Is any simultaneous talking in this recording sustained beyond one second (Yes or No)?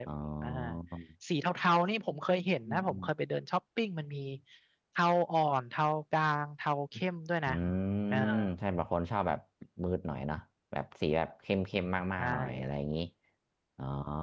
No